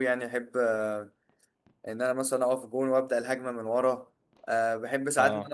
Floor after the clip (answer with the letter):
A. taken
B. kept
B